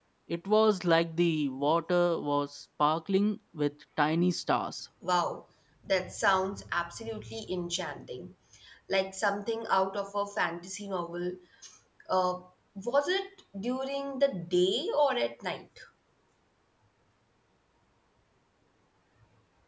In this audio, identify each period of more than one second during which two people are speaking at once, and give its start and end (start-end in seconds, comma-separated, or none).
none